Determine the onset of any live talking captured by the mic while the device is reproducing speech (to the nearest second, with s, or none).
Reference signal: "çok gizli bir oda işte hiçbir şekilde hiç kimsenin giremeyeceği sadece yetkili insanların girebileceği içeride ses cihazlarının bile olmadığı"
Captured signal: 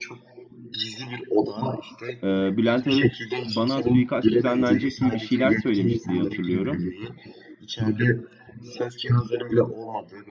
2 s